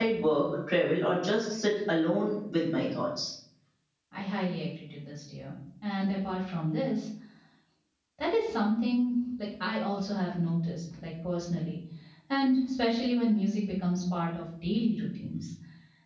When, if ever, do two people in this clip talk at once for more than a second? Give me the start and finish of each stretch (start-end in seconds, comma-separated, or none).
none